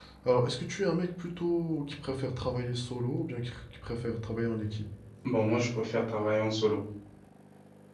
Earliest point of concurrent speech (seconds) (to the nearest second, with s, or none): none